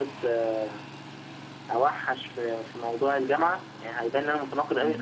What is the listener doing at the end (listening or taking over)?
listening